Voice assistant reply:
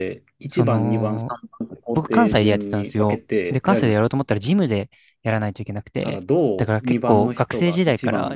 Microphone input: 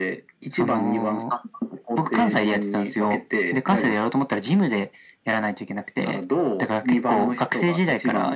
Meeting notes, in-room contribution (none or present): none